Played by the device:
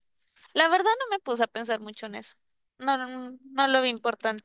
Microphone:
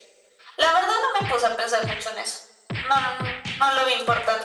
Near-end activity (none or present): none